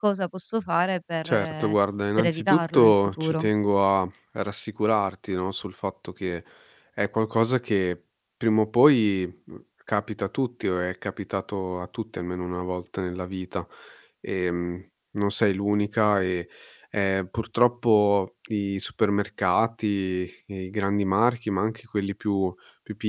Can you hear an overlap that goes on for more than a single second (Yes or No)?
Yes